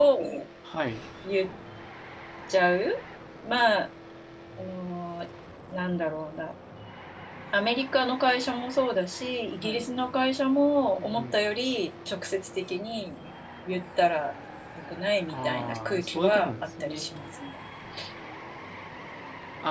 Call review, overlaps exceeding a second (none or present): present